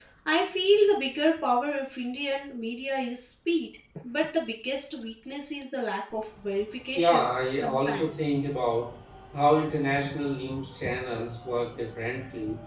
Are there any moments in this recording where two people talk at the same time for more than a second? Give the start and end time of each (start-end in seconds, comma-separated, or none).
6.9-8.3